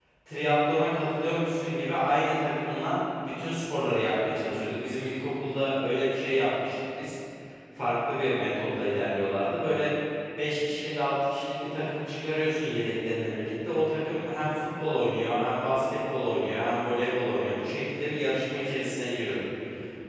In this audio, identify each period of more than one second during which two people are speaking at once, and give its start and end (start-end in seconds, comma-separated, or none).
none